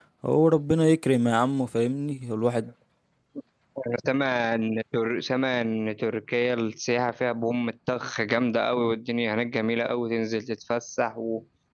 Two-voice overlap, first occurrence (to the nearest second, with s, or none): none